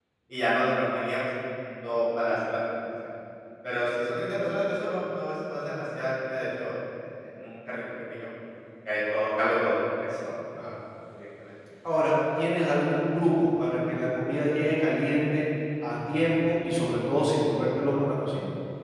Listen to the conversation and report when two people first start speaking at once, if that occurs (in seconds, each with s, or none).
none